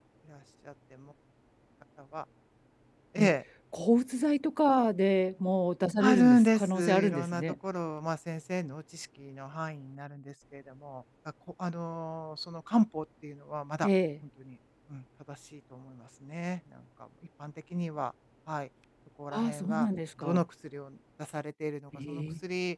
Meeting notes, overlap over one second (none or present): present